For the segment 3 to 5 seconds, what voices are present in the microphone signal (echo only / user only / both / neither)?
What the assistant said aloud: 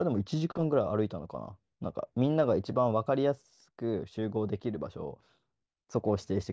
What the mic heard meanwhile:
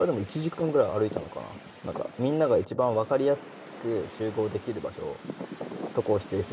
echo only